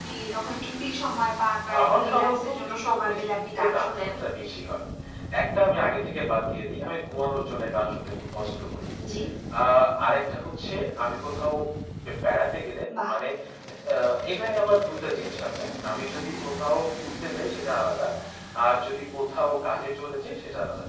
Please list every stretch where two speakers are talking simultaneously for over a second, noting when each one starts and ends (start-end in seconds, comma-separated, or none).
1.8-4.1